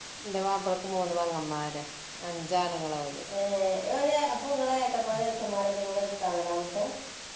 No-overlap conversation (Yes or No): Yes